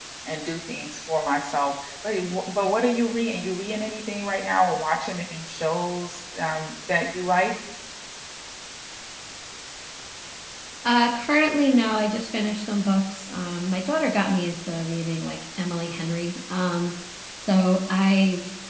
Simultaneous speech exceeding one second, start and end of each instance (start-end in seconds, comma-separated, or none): none